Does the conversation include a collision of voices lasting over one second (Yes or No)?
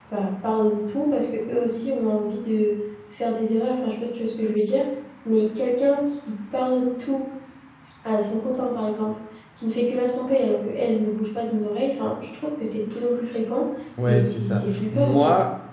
Yes